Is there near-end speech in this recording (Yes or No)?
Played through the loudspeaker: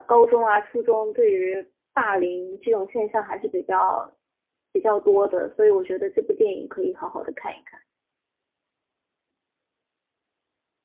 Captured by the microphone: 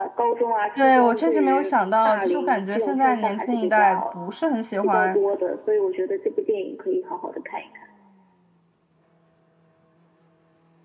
Yes